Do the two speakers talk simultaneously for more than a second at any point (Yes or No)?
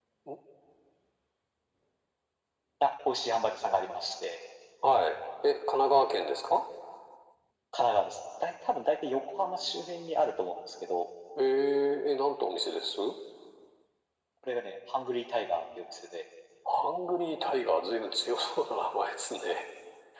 No